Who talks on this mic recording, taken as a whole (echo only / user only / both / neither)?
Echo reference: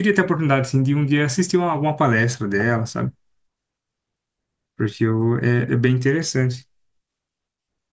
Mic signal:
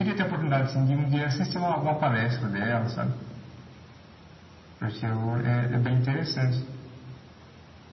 echo only